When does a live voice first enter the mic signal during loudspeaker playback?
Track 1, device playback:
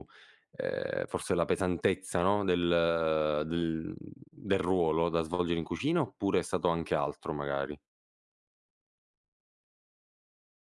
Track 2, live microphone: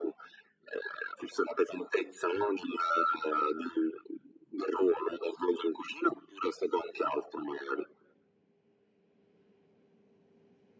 none

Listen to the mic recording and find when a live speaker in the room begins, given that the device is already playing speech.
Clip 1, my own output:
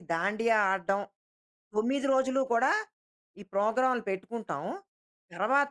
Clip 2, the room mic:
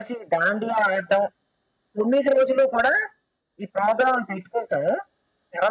none

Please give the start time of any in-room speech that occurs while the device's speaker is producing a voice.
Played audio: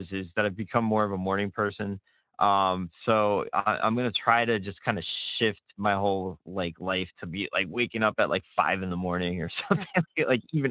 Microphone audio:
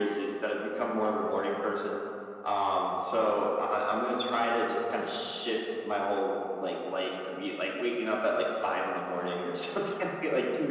none

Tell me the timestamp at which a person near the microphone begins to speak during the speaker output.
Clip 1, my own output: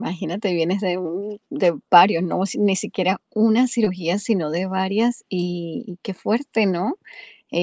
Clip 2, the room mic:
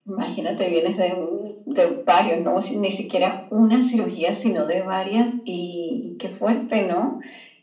none

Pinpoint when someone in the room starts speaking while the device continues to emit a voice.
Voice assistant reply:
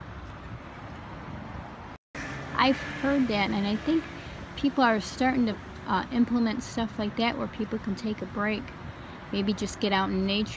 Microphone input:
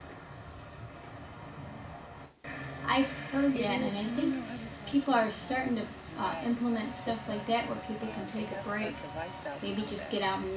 3.5 s

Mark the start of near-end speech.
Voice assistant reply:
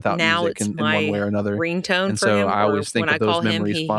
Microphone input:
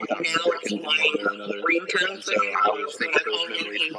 none

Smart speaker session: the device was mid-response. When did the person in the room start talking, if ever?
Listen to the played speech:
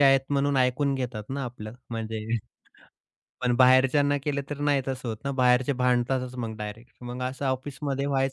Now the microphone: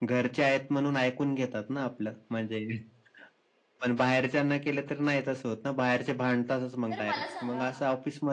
6.9 s

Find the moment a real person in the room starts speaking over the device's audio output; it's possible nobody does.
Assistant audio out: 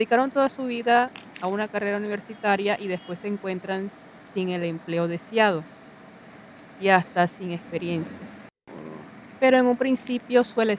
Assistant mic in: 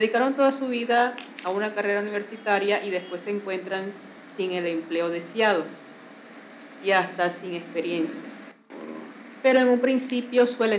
none

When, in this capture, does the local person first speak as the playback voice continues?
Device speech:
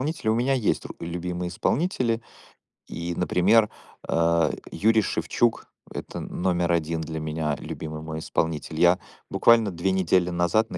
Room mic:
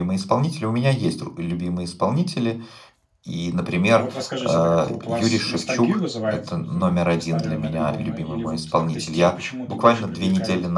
3.9 s

